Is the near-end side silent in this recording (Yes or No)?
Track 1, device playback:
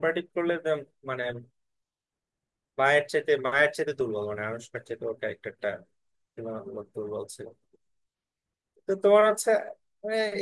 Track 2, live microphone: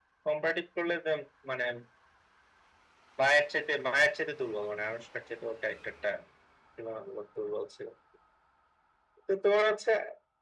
Yes